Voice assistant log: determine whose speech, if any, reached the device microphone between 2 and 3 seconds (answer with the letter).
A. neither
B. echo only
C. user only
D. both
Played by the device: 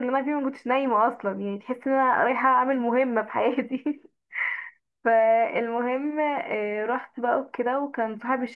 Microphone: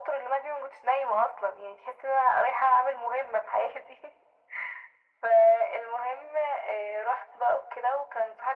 B